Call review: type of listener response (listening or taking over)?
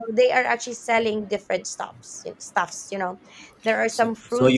taking over